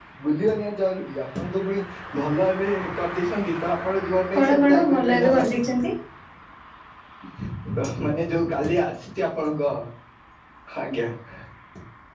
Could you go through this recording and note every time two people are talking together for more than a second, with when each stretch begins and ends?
4.4-5.8

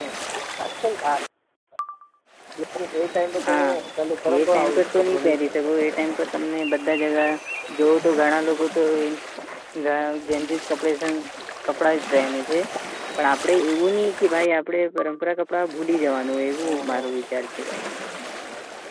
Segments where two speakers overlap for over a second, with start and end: 4.4-5.6

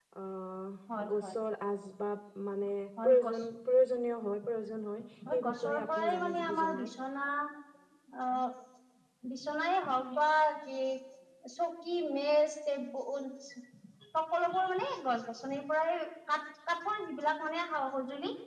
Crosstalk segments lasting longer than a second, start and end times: 5.3-6.9

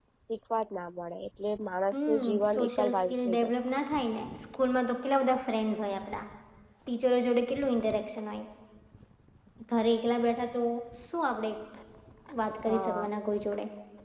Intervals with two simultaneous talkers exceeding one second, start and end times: 1.9-3.5

